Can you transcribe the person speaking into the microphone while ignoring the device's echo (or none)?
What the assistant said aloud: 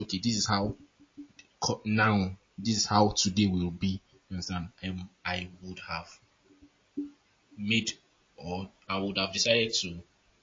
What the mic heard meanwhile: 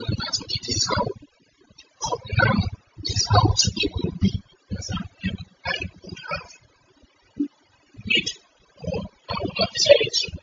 none